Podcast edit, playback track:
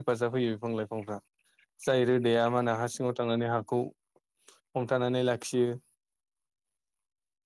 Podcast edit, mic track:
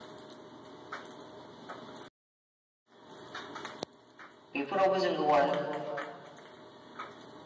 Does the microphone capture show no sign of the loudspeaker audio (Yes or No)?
Yes